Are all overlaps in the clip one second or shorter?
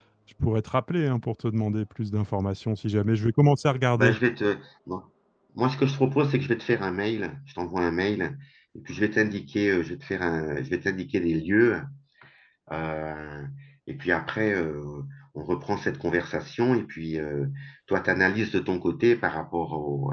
Yes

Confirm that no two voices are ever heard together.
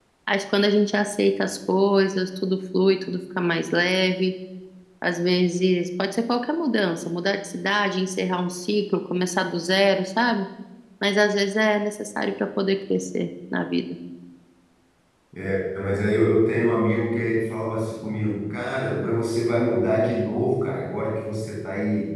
Yes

